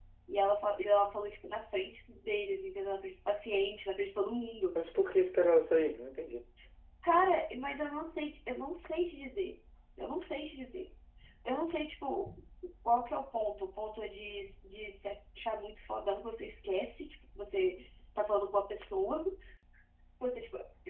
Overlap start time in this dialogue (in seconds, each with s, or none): none